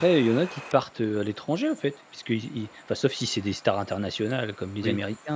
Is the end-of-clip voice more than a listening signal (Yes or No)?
No